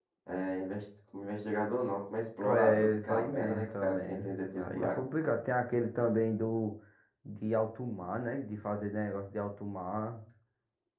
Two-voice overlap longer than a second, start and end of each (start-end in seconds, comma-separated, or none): 2.4-5.1